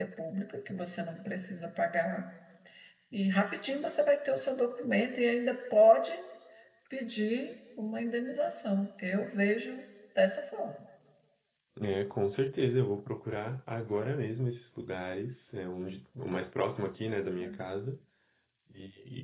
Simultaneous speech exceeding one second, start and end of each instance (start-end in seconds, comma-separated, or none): none